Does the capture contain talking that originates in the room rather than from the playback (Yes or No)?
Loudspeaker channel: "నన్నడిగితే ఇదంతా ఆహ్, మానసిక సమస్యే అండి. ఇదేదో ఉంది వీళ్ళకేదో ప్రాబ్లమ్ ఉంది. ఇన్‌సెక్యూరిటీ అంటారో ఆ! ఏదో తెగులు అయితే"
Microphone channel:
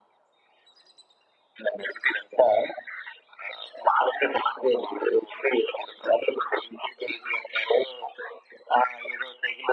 No